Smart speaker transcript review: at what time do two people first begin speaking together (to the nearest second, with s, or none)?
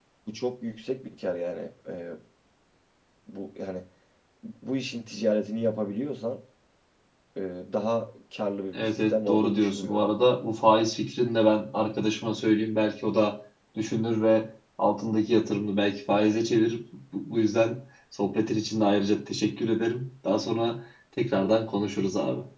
9 s